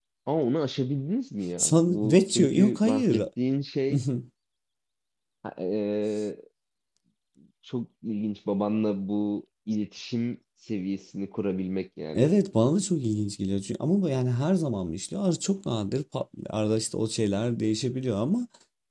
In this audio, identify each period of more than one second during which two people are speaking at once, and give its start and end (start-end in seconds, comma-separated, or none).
1.6-3.2